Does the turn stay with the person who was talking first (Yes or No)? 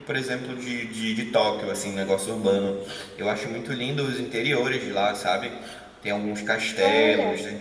Yes